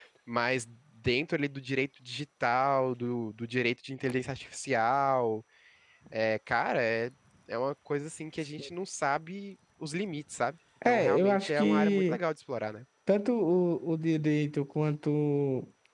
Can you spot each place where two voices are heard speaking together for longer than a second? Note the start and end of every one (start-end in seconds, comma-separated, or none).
10.8-12.2